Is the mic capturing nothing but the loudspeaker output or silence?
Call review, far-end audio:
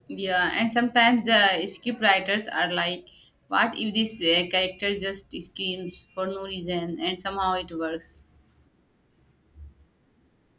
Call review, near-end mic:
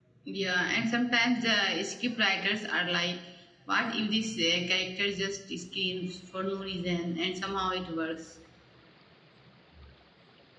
Yes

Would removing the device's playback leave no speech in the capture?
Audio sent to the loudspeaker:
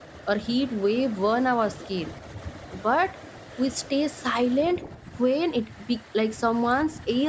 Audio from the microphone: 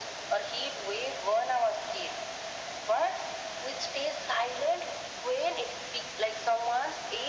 Yes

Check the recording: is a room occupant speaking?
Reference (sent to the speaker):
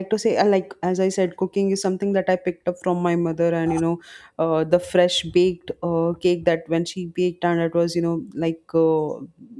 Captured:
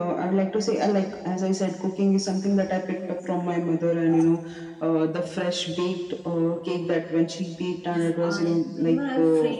Yes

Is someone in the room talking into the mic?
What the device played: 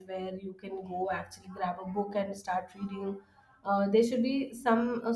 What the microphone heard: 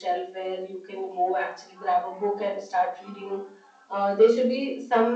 No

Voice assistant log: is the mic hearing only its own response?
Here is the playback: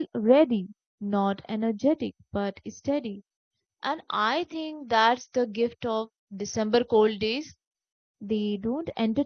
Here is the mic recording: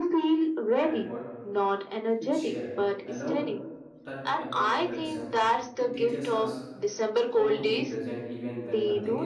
No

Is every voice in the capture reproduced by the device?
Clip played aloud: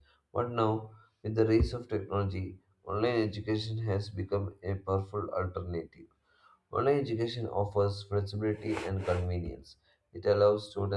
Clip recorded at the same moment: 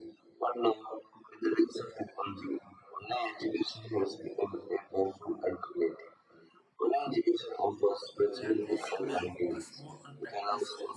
No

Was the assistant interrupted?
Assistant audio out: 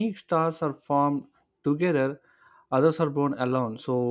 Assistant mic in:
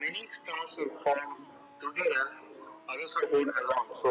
No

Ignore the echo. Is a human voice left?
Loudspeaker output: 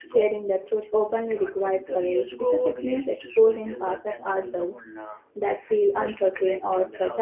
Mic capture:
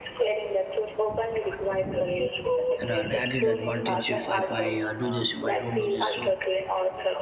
Yes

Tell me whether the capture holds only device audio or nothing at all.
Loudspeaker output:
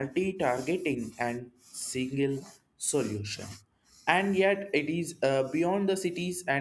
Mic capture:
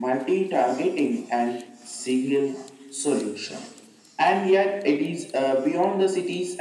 Yes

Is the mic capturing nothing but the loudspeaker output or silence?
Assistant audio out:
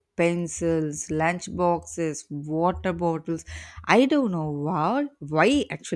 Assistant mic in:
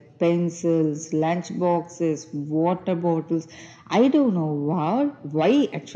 Yes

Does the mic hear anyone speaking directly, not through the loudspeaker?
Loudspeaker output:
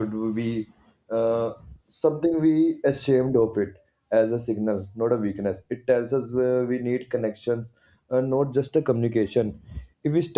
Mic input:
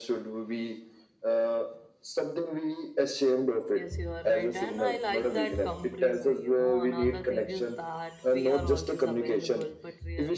Yes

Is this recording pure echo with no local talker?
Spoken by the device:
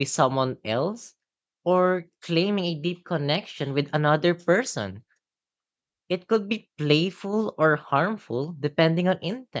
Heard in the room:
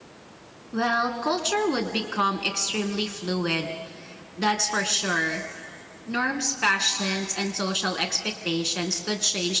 No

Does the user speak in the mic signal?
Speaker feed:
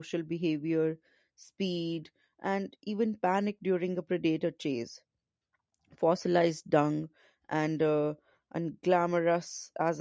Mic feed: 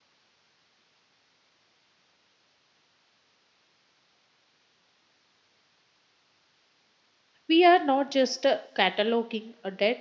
Yes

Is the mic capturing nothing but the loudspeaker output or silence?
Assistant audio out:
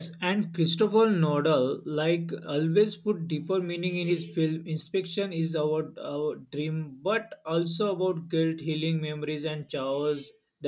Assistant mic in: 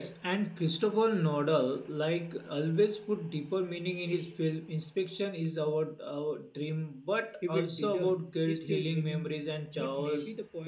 No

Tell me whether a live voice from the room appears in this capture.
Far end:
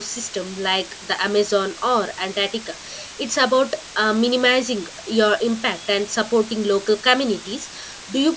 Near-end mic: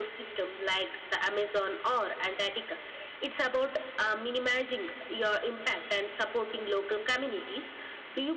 No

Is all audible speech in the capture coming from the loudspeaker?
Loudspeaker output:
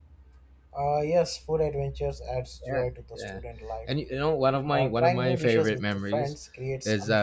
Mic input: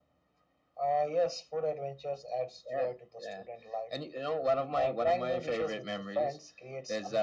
Yes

